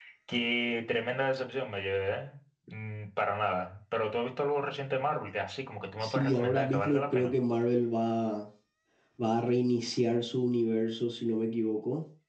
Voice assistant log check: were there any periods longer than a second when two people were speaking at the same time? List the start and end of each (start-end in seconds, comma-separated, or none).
6.0-7.3